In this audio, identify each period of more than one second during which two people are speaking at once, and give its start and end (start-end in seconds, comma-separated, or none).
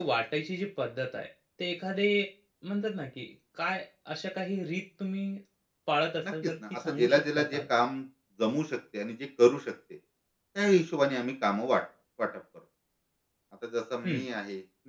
6.3-7.6